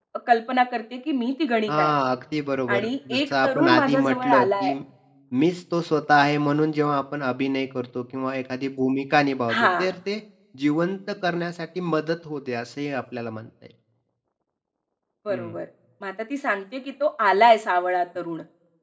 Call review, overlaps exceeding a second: present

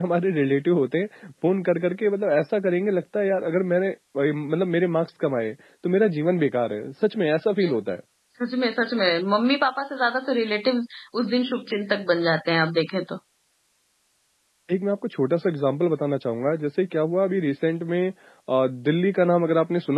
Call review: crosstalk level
none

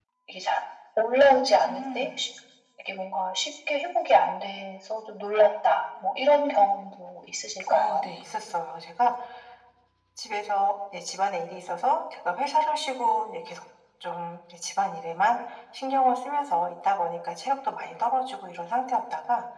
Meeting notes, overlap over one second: none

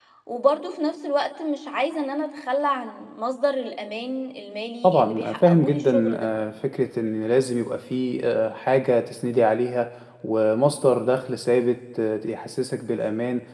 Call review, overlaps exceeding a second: present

